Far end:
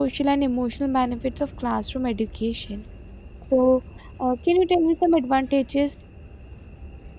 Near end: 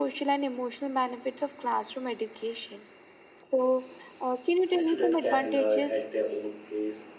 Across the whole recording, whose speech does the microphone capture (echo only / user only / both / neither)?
both